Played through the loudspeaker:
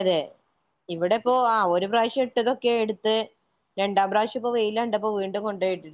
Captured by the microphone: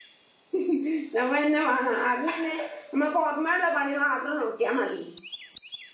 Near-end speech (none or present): present